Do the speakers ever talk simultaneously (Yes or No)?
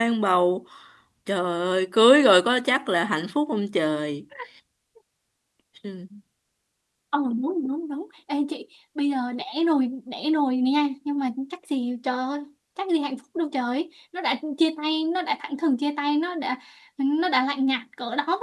No